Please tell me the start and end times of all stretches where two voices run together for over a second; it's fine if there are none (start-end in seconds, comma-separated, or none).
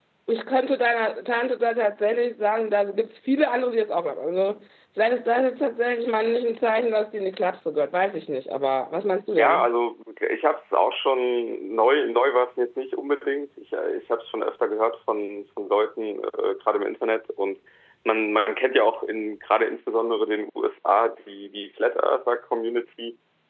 none